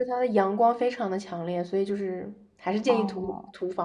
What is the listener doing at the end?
taking over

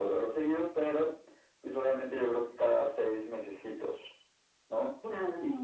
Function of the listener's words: listening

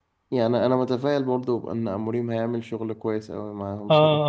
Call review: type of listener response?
taking over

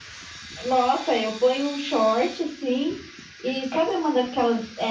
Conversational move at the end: listening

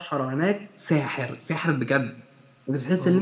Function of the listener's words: listening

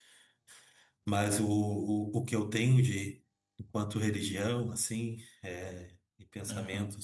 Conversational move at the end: listening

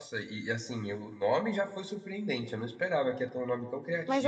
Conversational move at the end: taking over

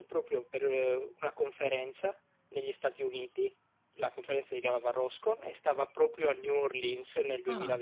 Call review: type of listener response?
listening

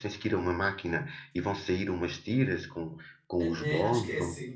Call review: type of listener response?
taking over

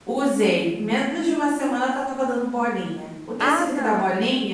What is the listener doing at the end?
listening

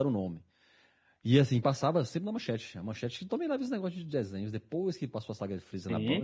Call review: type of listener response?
taking over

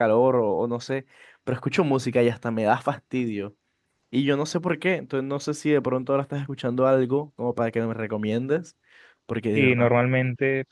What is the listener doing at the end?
taking over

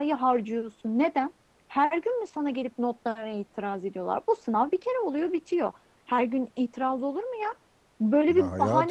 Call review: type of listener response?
listening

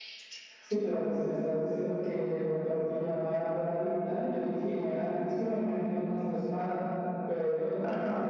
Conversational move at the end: listening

